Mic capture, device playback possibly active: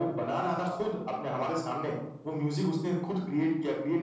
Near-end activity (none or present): none